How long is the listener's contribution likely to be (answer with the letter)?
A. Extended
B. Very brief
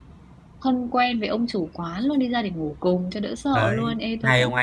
A